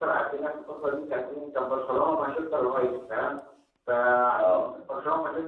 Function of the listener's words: listening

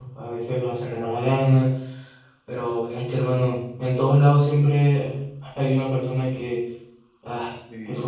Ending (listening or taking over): listening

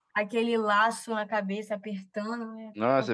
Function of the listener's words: taking over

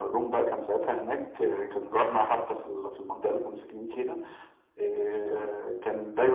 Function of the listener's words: listening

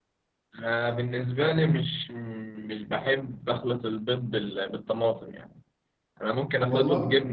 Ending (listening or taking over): listening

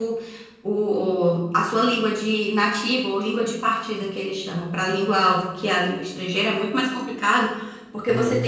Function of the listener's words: listening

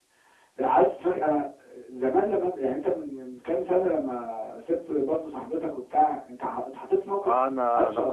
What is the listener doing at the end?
taking over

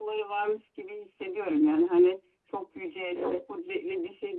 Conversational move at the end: listening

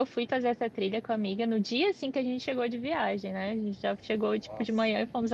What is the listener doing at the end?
listening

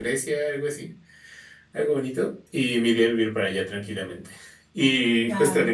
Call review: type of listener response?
listening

